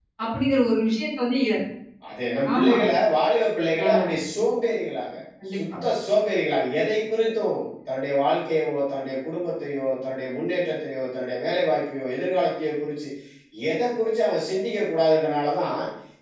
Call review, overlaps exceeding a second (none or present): none